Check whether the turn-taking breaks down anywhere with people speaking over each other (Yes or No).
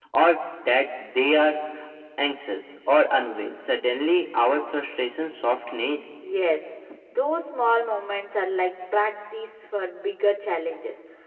No